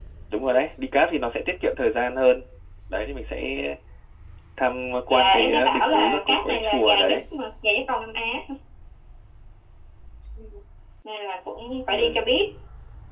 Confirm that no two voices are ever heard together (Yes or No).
No